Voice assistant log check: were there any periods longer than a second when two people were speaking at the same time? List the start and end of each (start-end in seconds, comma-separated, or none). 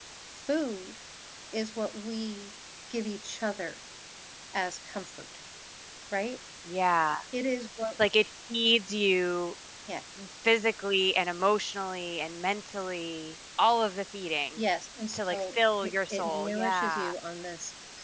15.1-17.1